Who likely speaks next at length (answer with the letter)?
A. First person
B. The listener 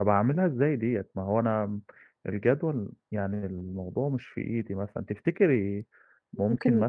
B